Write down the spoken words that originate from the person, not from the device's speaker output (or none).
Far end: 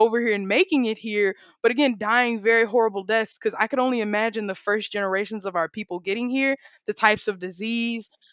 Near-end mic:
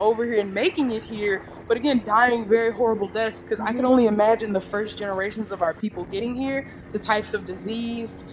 Mhm.